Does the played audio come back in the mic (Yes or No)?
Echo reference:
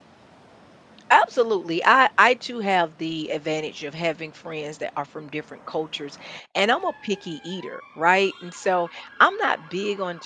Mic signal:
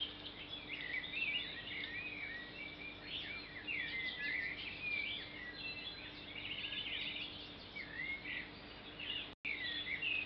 No